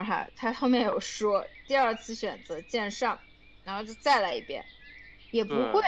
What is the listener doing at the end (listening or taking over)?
listening